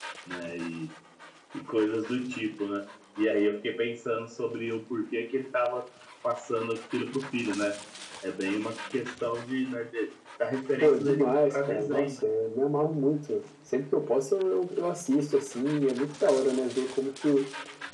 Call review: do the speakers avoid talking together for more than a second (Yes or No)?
No